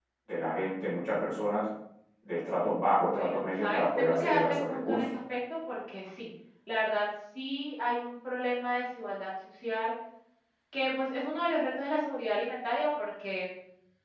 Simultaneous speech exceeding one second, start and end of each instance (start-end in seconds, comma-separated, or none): 3.1-5.0